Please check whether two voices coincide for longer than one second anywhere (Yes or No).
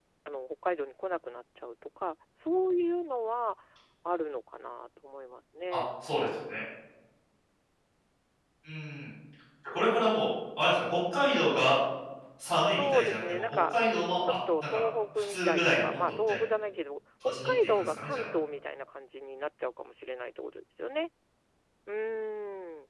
Yes